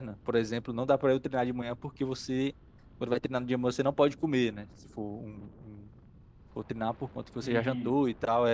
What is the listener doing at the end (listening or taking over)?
listening